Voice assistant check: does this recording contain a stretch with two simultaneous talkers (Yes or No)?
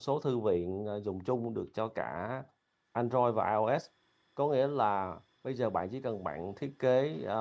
No